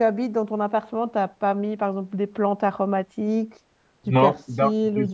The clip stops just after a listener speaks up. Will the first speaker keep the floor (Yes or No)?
No